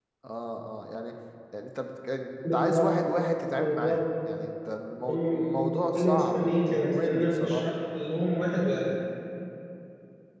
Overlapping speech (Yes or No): Yes